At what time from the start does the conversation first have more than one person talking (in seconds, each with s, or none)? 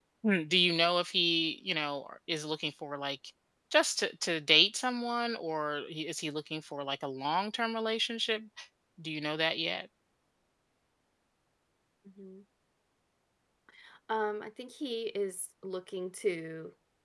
none